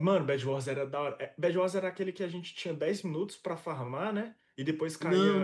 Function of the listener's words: taking over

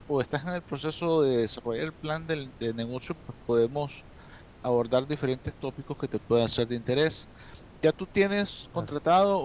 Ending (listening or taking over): listening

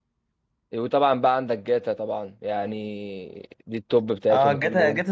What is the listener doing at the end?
taking over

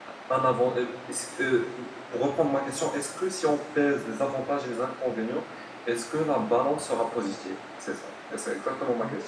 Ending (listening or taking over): taking over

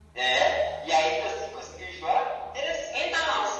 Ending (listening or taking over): taking over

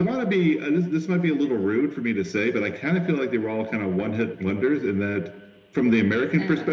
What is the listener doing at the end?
listening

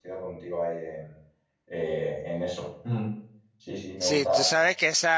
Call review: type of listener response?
taking over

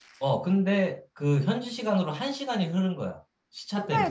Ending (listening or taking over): taking over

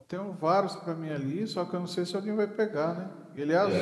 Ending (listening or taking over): taking over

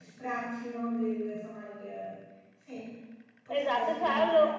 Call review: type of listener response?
taking over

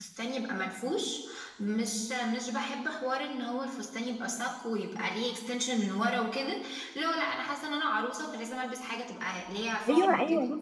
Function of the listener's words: taking over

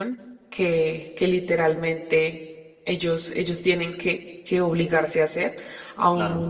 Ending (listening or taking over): listening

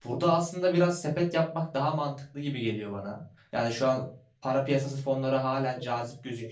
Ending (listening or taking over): taking over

